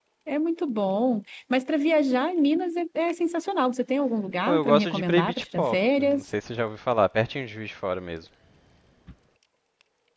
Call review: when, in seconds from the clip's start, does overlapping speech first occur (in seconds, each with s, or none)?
4.5 s